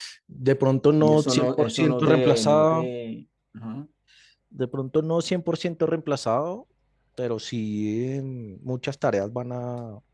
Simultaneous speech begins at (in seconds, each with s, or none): 1.0 s